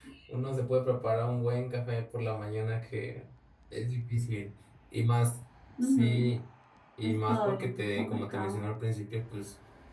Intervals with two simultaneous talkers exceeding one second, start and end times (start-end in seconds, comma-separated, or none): 7.0-8.6